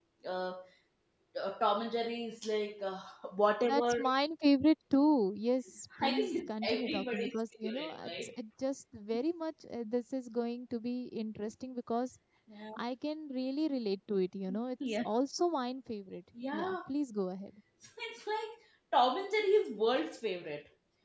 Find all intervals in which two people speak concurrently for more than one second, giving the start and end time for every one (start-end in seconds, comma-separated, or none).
6.0-8.3